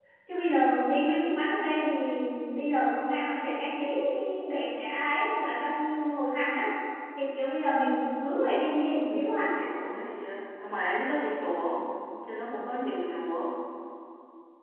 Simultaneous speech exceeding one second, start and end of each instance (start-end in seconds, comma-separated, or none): none